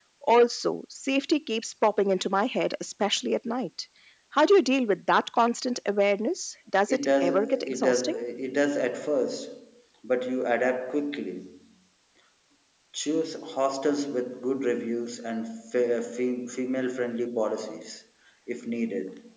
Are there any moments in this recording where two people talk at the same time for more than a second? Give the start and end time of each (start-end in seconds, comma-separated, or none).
6.9-8.2